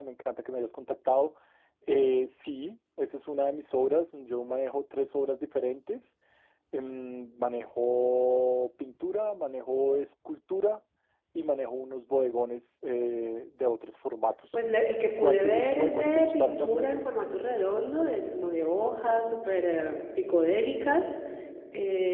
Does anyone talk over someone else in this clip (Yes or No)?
Yes